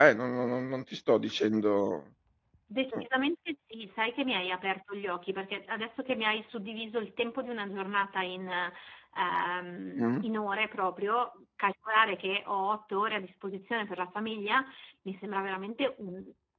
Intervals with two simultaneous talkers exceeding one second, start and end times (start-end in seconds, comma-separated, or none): none